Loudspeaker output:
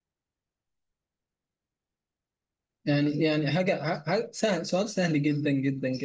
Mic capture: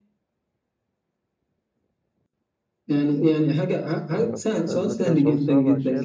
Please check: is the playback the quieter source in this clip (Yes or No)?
No